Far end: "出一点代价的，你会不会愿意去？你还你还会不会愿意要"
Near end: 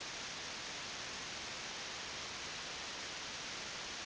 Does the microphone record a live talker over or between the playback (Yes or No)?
No